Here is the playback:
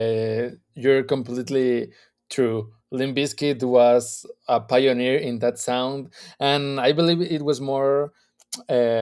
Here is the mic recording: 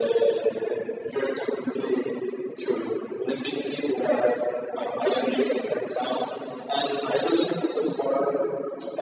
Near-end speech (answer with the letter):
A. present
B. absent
B